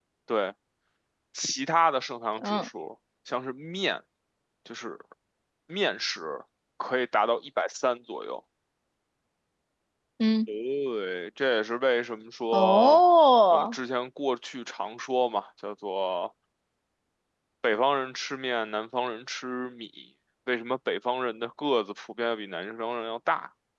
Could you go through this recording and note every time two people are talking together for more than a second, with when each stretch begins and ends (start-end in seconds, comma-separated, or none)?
none